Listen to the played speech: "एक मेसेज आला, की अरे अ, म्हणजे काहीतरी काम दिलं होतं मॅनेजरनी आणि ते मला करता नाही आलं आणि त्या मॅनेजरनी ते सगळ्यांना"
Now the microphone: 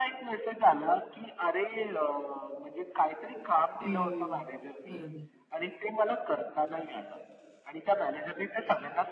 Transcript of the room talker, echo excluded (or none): हम्म. बरोबर.